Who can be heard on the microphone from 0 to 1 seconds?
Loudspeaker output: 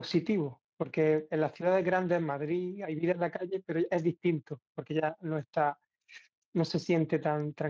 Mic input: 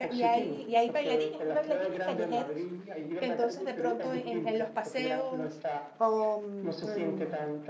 both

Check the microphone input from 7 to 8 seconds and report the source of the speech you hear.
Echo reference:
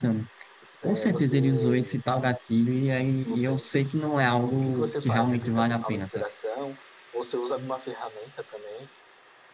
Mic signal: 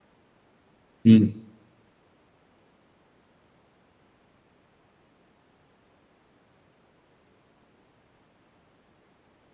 neither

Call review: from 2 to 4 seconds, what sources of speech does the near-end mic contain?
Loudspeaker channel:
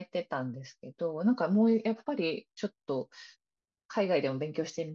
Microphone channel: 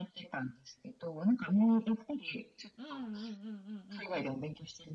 both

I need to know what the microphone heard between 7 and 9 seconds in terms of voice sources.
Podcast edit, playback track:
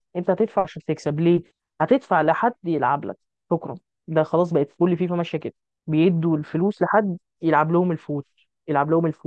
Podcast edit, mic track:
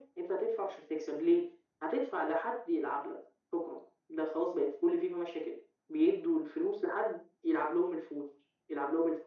echo only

